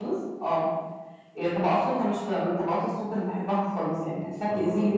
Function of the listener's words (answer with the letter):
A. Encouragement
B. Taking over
A